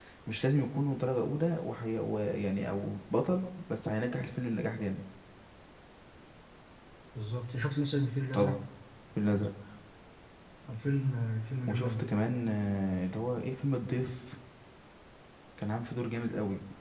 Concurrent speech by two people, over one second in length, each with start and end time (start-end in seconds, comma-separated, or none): none